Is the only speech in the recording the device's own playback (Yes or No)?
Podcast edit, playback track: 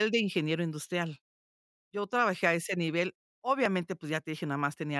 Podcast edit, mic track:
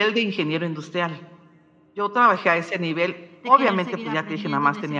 No